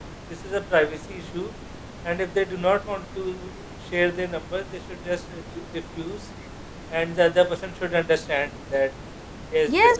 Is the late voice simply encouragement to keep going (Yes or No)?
No